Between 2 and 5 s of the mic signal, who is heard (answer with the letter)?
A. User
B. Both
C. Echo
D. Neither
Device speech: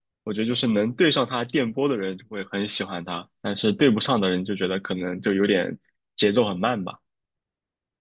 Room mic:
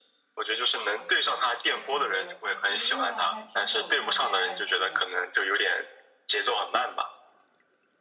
B